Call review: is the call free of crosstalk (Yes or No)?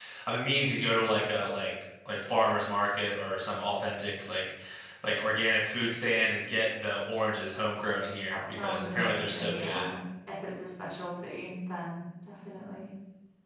No